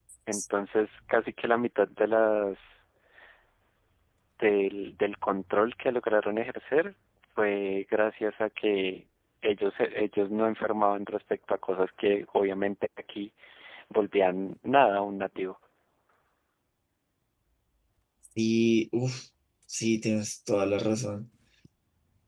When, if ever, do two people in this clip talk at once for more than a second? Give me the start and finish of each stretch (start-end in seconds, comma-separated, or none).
none